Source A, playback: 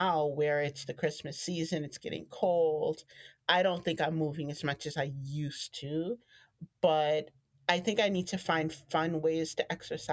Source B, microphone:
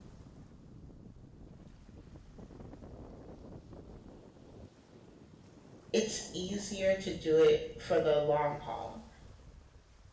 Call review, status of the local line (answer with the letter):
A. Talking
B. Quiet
A